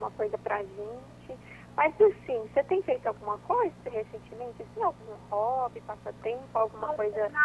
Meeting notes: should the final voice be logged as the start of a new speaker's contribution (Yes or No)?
Yes